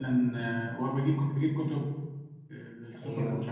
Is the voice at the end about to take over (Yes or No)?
No